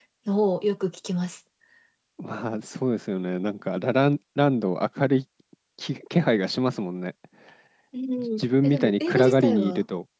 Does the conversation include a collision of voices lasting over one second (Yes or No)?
Yes